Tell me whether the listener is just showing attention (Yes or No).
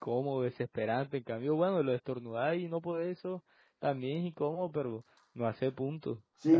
No